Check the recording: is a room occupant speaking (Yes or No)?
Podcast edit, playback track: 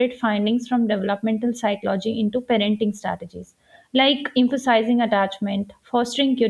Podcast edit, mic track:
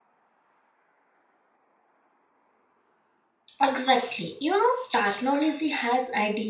Yes